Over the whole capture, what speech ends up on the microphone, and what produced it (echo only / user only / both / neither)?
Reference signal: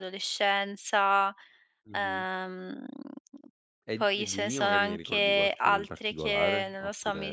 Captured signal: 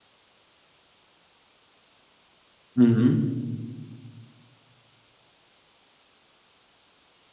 user only